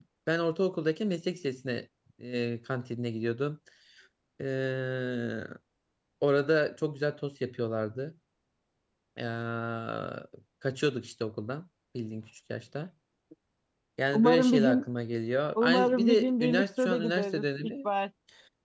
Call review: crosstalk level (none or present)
present